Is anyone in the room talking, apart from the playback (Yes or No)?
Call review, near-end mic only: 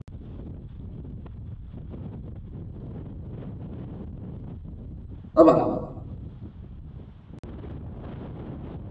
Yes